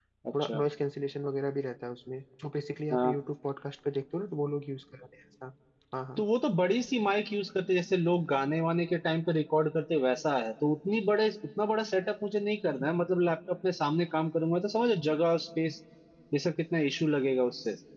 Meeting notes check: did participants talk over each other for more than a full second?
No

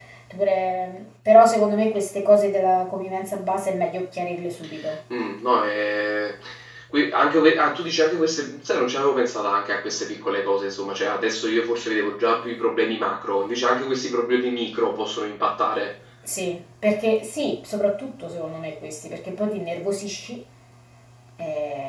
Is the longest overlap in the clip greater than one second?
No

